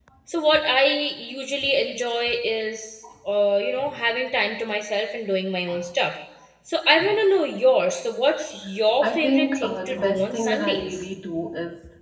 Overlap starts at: 9 s

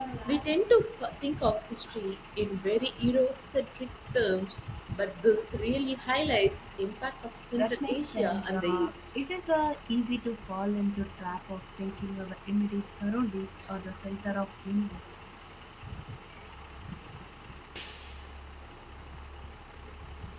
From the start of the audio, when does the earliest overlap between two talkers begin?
8 s

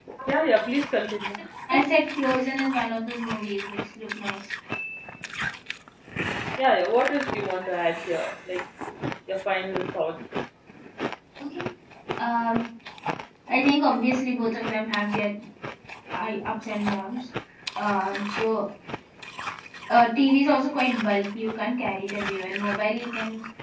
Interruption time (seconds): none

